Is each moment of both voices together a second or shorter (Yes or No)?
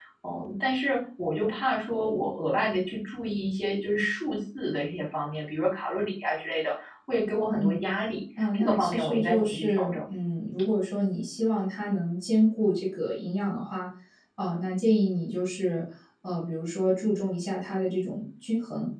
No